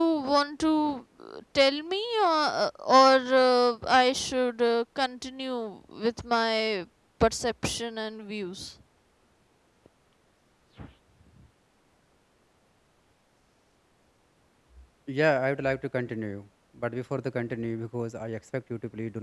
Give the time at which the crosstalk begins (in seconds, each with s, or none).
none